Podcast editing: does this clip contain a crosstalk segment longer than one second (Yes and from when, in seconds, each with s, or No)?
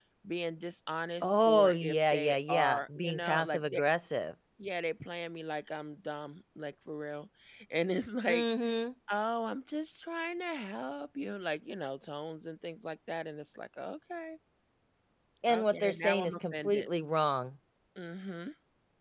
Yes, from 1.2 s